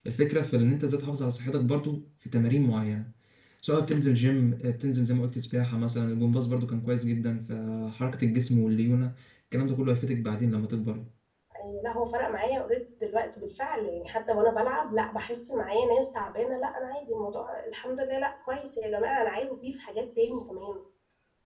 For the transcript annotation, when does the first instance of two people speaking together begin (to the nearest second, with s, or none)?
none